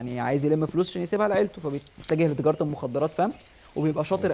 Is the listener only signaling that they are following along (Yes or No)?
Yes